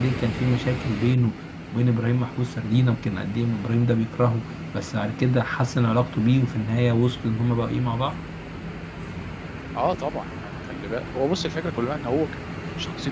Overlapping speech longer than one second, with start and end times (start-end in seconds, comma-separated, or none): none